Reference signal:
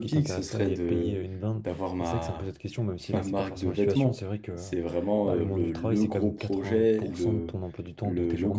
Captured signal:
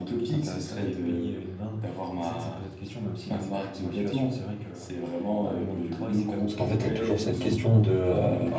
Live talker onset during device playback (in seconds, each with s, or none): 6.4 s